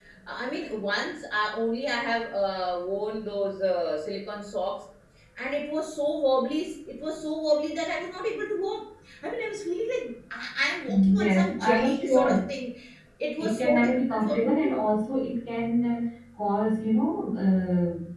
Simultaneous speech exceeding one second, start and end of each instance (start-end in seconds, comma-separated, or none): 11.1-12.4, 13.4-14.8